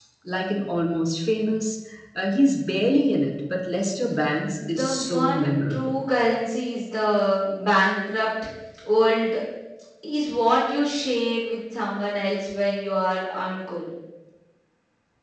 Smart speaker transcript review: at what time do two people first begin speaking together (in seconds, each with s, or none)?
4.6 s